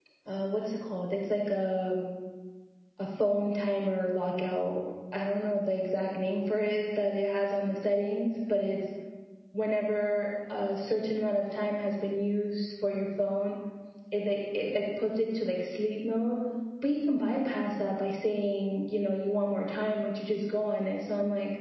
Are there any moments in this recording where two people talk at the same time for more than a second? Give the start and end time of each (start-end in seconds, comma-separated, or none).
none